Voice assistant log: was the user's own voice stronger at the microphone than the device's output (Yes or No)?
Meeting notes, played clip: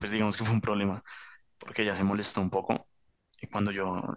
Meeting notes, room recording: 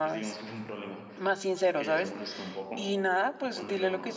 Yes